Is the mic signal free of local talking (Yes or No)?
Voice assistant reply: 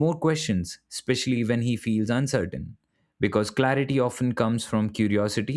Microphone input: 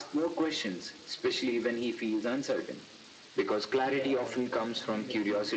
No